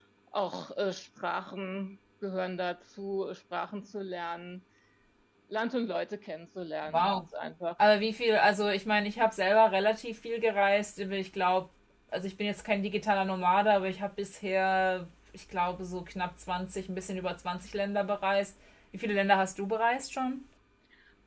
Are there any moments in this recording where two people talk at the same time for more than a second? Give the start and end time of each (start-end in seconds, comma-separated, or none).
none